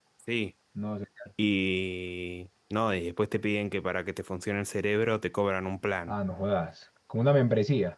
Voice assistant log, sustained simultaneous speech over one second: none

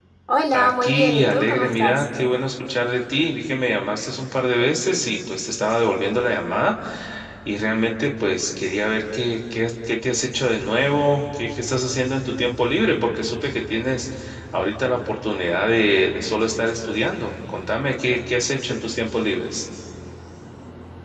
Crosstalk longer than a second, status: present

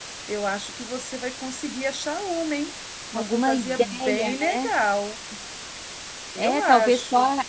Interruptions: present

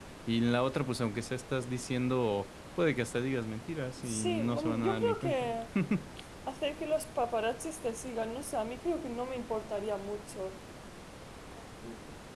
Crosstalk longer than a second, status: present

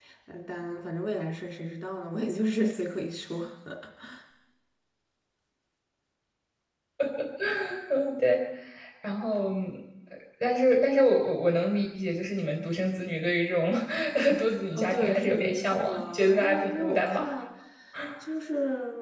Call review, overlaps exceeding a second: present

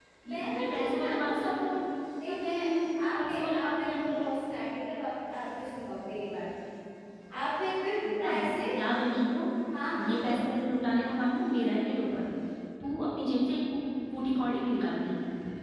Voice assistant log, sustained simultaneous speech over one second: present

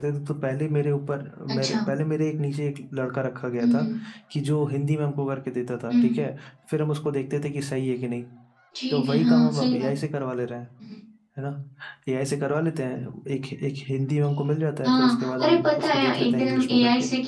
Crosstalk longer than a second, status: present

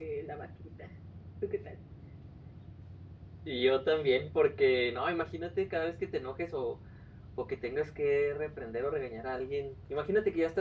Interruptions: none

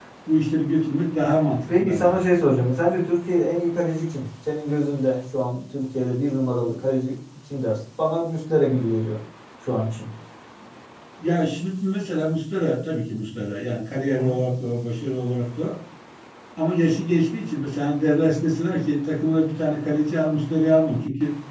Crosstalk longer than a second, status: none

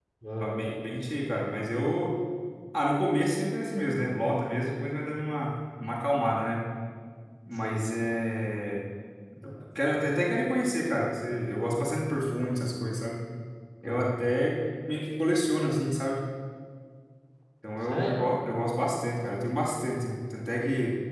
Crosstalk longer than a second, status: none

